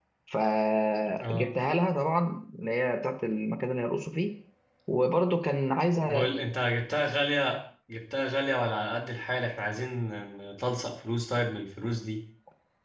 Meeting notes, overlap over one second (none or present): none